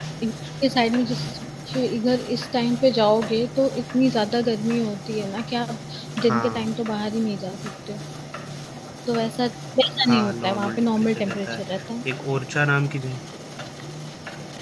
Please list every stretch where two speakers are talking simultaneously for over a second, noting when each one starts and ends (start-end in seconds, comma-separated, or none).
10.1-11.6